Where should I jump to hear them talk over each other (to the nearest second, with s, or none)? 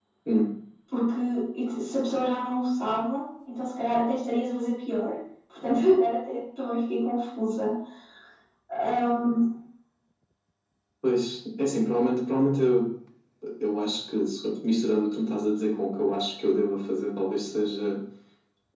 none